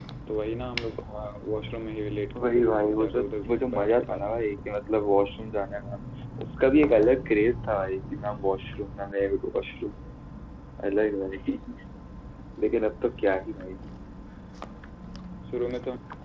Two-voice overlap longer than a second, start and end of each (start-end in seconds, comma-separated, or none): 2.4-4.7